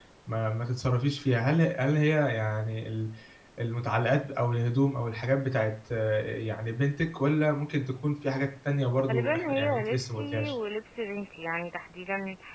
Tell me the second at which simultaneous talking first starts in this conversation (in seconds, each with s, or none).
9.1 s